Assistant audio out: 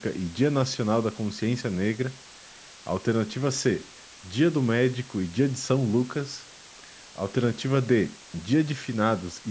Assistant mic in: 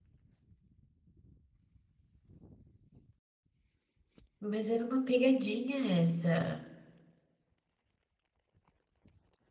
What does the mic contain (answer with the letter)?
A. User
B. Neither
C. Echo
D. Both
A